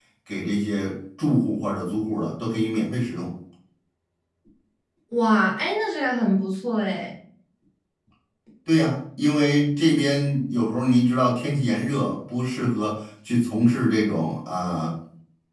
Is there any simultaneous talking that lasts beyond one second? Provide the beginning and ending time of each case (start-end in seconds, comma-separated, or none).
none